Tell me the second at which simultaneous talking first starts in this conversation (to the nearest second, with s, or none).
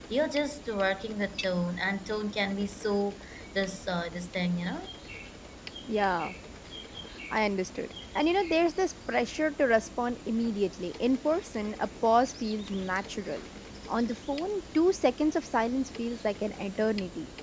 none